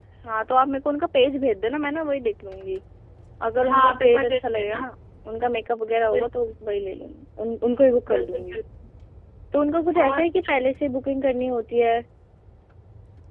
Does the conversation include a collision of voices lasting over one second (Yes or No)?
Yes